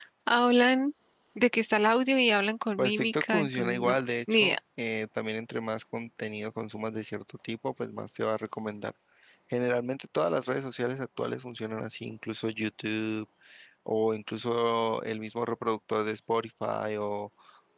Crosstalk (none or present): present